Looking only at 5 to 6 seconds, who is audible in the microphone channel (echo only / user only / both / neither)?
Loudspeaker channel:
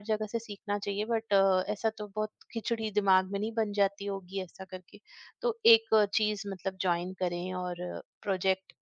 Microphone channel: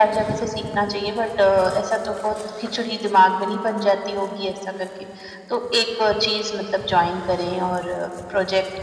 echo only